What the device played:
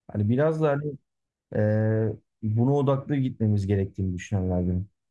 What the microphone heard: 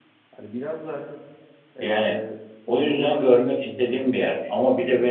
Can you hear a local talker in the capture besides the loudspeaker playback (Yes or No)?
Yes